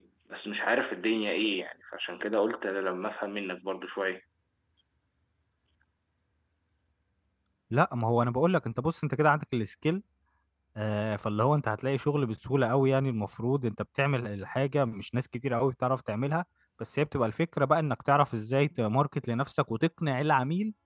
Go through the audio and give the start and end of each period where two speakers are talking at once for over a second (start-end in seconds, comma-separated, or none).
none